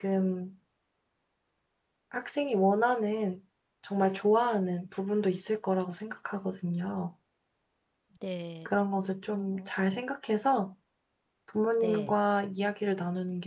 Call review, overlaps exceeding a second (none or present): none